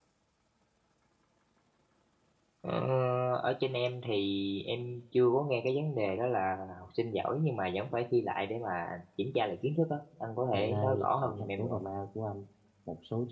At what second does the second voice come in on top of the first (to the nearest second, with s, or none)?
11 s